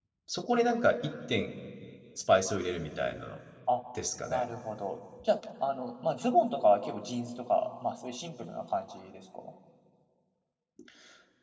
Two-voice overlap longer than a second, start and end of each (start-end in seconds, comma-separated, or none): none